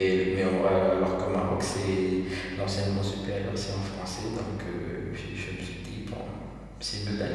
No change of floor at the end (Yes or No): No